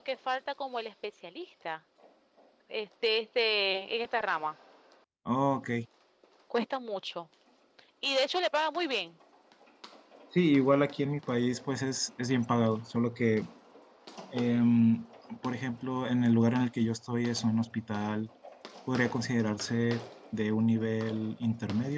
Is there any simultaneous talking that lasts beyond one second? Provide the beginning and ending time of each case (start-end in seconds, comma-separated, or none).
none